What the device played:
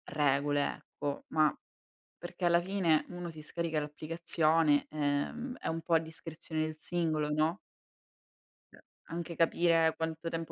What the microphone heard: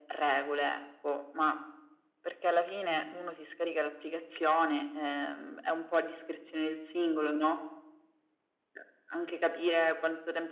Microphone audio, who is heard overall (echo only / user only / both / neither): echo only